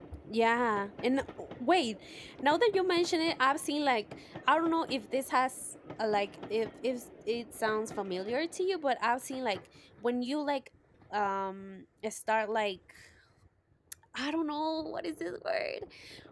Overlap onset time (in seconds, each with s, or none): none